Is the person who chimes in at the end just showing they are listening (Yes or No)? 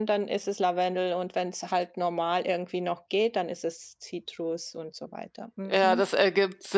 No